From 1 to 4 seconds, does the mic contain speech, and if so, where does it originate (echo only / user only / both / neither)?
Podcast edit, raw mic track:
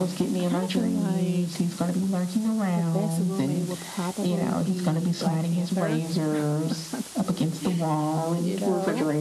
both